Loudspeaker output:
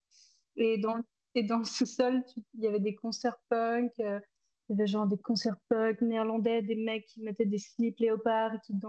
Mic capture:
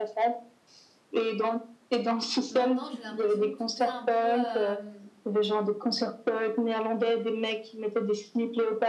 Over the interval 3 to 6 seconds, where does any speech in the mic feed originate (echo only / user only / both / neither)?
both